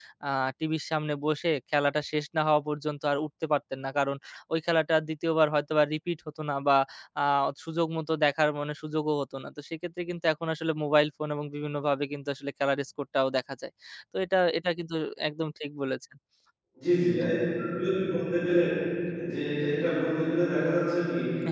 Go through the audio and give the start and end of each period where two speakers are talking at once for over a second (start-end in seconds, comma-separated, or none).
none